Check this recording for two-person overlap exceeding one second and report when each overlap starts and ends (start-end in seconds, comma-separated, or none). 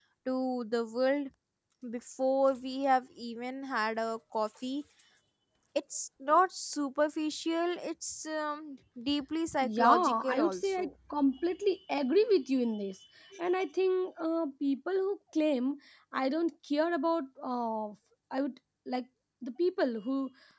9.6-10.9